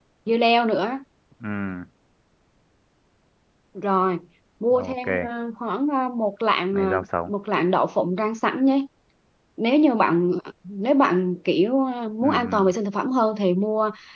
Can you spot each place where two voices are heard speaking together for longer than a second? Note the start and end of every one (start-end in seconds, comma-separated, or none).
none